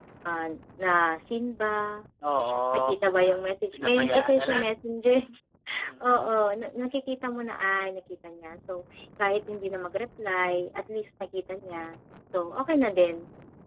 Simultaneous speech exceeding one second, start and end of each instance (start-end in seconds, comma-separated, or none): 2.8-4.7